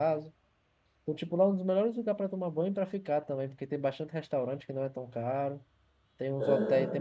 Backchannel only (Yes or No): Yes